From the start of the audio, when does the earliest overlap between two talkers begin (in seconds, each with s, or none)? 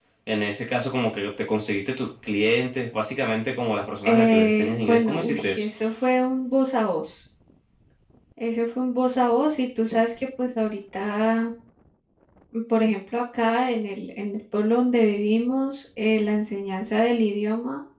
4.0 s